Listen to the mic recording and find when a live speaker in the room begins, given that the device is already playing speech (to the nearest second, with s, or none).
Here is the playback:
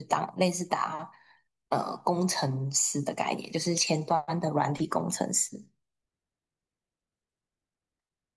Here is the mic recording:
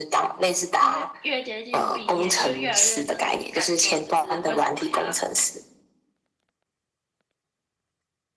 1 s